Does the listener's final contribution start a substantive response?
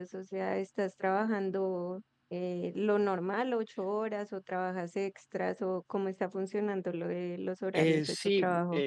Yes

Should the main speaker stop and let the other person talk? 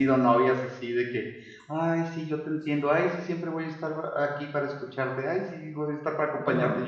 No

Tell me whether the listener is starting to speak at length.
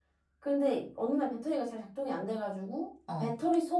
No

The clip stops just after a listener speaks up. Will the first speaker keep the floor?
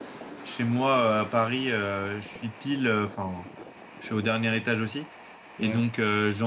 Yes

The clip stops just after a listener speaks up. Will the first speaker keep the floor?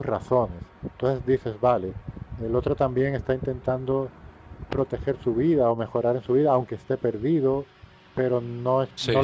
Yes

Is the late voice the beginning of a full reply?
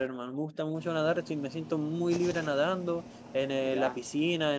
No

